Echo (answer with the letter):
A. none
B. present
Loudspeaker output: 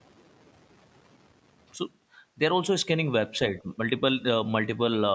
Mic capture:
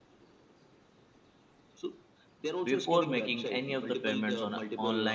B